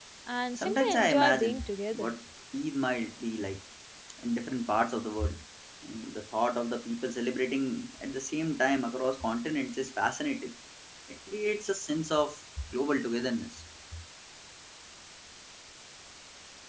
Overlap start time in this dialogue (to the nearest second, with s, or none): 1 s